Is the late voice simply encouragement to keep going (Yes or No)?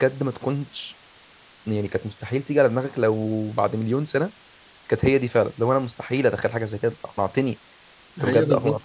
Yes